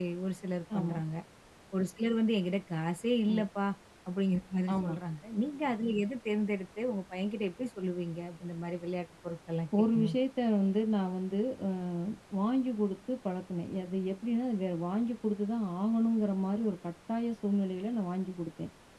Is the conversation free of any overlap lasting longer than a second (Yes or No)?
Yes